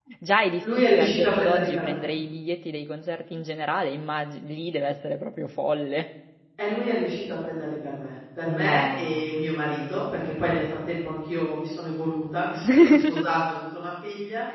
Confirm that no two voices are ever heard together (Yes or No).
No